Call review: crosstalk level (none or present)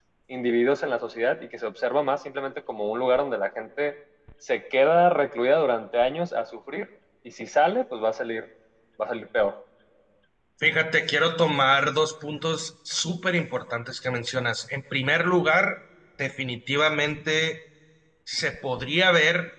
none